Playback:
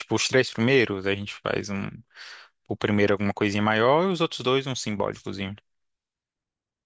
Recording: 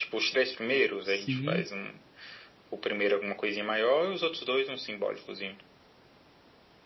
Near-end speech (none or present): present